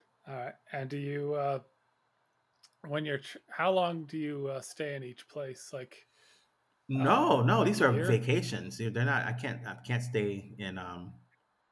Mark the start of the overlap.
7.0 s

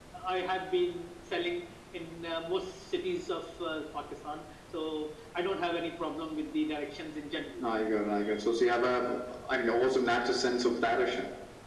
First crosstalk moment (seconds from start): none

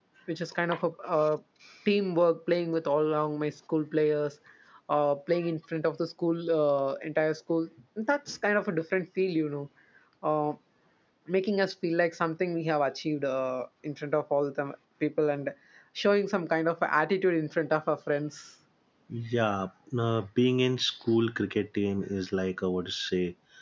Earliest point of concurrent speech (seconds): none

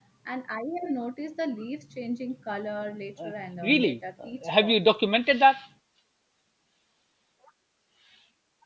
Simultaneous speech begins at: 3.6 s

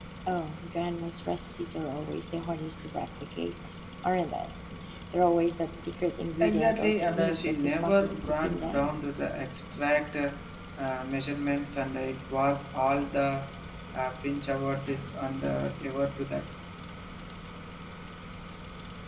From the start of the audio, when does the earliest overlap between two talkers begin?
6.4 s

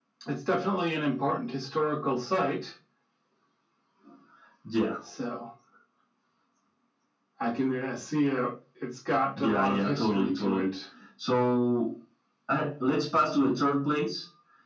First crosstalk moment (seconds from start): 9.4 s

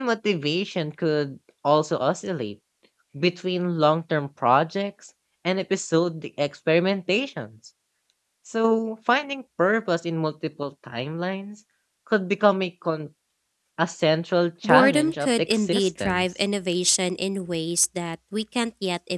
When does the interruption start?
14.6 s

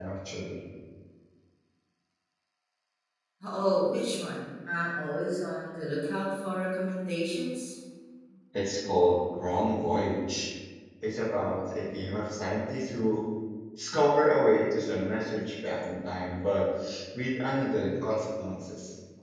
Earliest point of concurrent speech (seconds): none

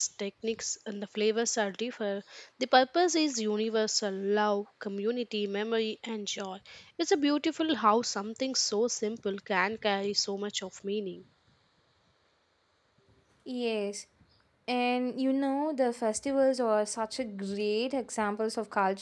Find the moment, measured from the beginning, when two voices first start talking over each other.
none

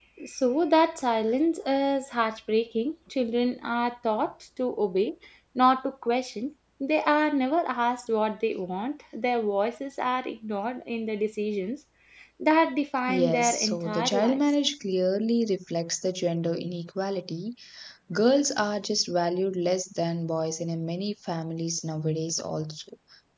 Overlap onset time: 13.1 s

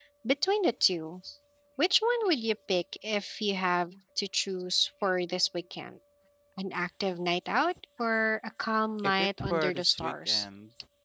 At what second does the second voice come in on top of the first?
9.0 s

